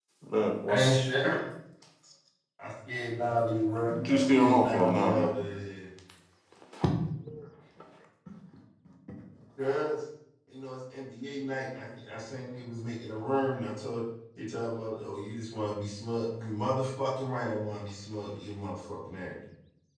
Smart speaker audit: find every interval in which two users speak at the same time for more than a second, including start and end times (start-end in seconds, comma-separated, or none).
3.9-5.4